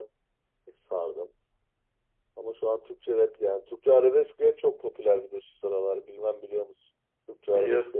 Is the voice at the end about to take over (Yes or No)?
Yes